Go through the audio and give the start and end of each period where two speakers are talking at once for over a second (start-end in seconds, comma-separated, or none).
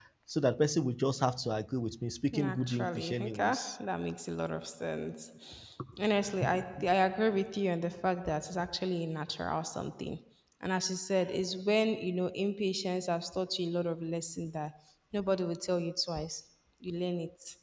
2.4-3.8